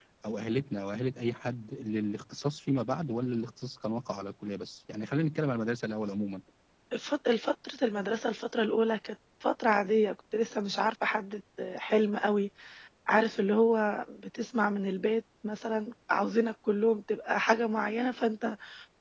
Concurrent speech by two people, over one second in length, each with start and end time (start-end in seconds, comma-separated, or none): none